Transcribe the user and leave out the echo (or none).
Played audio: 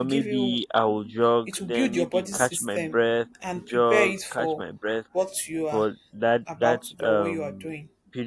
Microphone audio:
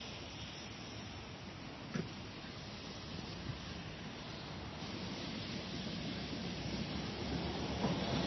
none